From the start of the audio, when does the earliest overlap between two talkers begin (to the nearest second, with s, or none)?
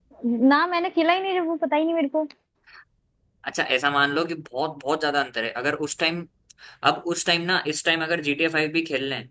none